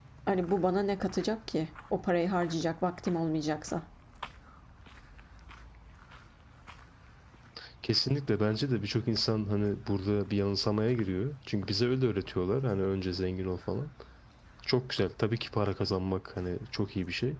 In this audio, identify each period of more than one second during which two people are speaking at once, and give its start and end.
none

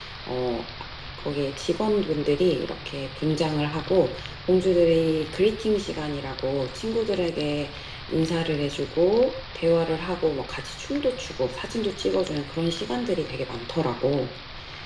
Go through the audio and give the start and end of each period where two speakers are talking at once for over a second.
none

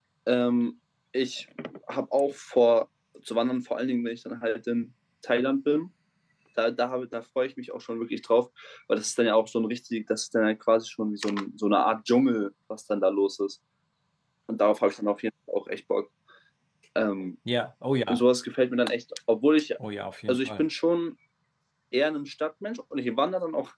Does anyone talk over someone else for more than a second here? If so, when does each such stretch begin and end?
none

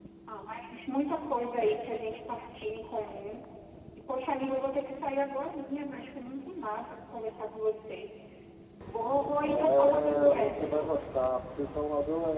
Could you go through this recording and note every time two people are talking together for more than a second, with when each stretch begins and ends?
9.4-11.1

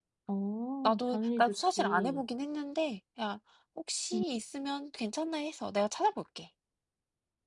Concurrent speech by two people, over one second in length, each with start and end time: 0.8-2.2

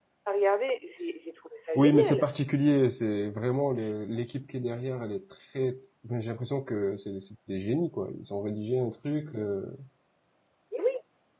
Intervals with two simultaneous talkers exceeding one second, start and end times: none

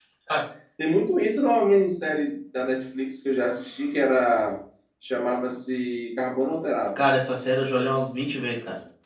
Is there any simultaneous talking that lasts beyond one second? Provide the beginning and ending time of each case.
none

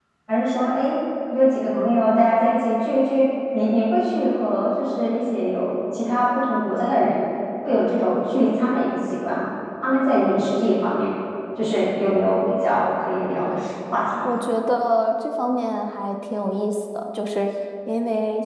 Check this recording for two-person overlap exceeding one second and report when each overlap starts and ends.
none

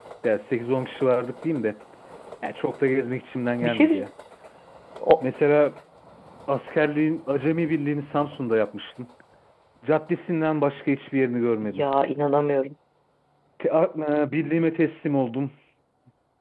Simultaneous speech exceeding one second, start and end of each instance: none

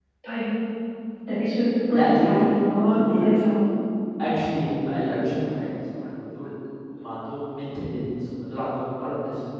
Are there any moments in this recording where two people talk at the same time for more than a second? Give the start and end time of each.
1.9-3.3

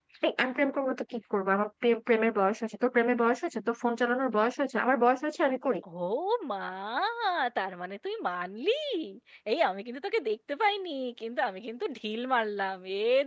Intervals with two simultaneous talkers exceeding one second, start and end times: none

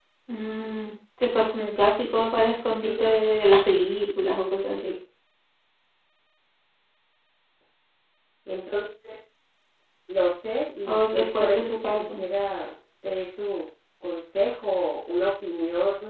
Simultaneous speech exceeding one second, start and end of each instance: 10.9-12.2

